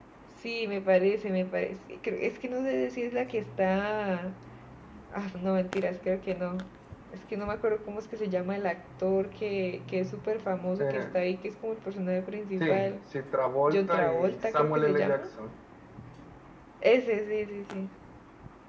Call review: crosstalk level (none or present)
present